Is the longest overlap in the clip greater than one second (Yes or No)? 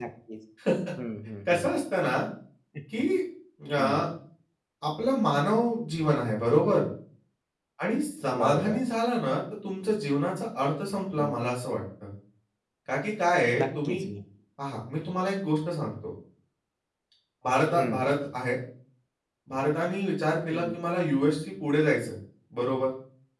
No